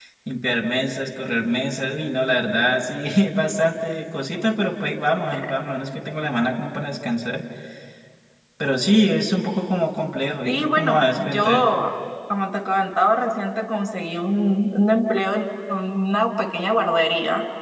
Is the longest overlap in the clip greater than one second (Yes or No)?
Yes